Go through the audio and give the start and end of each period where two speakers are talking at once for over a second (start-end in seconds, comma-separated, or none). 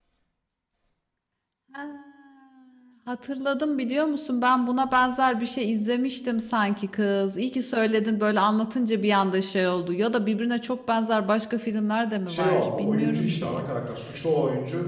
12.3-13.7